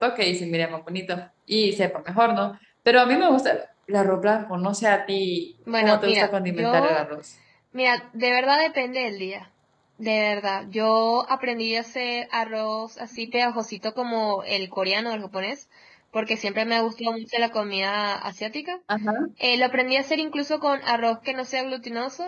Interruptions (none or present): present